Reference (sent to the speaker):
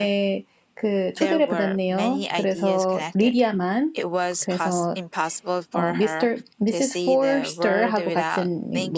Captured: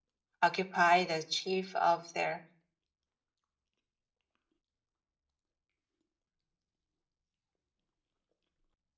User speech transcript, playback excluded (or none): occupy the chief of their